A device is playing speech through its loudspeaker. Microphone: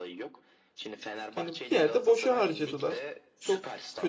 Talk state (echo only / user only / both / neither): both